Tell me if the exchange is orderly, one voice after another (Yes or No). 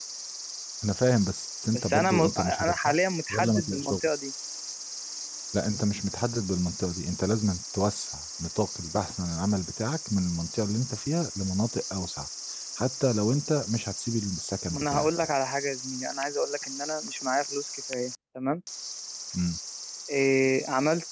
No